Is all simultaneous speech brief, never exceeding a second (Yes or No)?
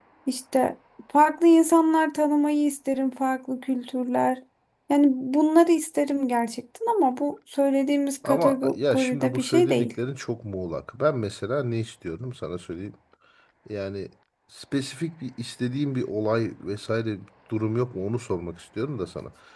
No